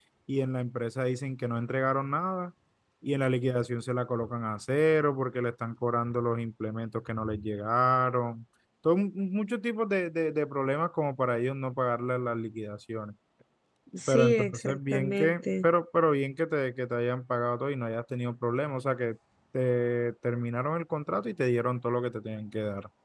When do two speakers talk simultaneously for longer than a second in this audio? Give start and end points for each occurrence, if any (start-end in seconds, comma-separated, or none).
14.1-15.7